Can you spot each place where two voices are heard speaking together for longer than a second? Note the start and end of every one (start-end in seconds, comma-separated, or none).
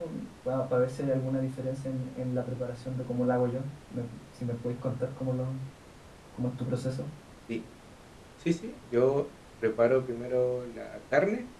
none